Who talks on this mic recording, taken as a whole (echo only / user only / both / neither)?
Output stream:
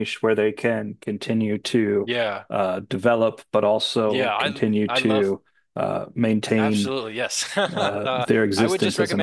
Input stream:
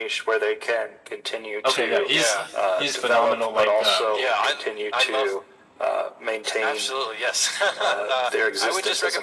both